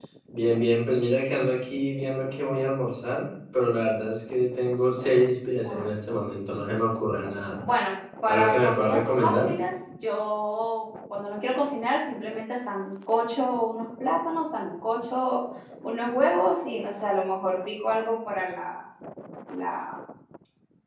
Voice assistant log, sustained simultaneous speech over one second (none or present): present